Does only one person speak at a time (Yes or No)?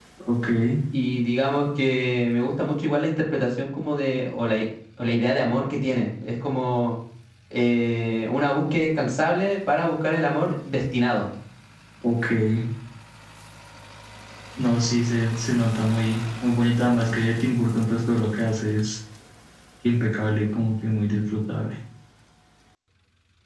Yes